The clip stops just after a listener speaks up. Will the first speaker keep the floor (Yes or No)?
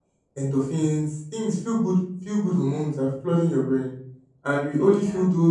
Yes